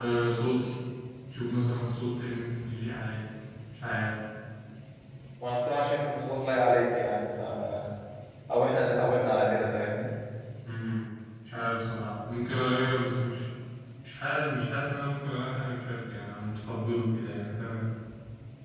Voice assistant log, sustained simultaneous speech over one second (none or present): none